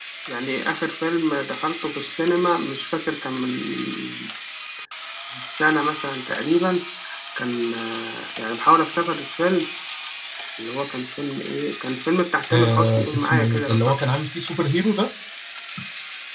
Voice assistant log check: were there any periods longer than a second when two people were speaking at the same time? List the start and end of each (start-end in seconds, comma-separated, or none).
12.5-13.9